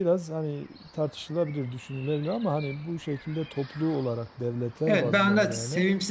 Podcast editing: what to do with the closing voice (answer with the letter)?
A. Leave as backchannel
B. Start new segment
B